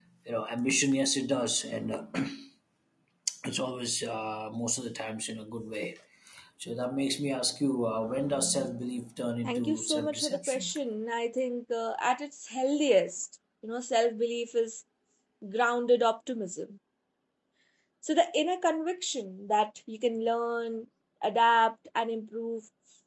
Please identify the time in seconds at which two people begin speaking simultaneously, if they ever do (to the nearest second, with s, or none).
9 s